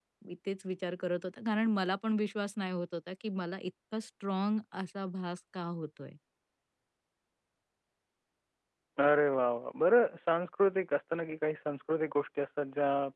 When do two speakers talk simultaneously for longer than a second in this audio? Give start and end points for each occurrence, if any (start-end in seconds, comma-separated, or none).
none